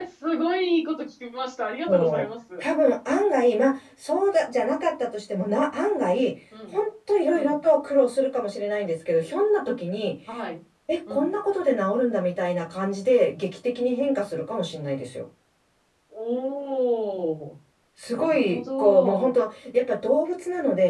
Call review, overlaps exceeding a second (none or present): present